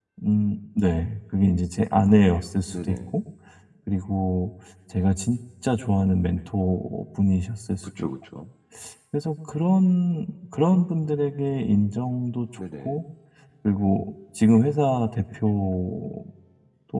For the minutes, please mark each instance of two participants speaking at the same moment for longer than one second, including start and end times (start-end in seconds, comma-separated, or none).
none